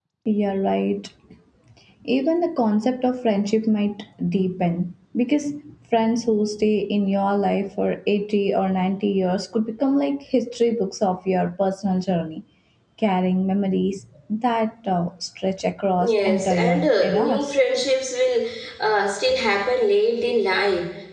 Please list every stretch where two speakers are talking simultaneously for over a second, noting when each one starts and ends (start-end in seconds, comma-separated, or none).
16.0-17.6